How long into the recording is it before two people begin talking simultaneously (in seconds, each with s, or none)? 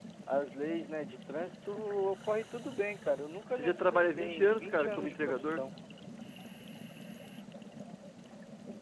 3.5 s